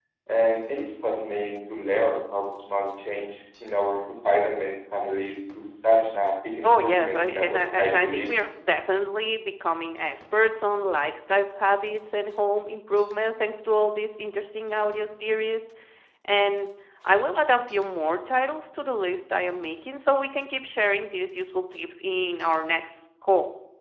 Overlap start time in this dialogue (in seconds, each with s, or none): 6.6 s